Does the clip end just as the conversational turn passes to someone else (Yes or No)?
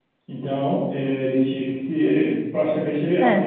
No